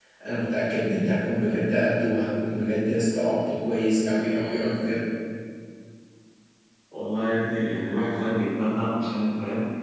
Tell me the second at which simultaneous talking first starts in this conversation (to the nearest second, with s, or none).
none